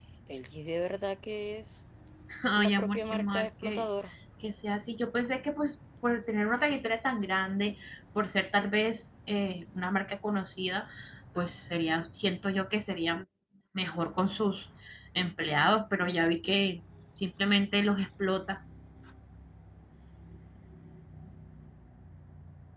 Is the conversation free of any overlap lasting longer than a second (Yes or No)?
No